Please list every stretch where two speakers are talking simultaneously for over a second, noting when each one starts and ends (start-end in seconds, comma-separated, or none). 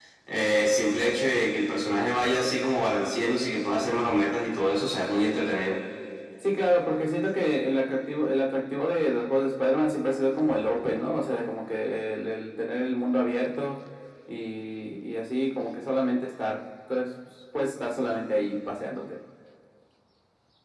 none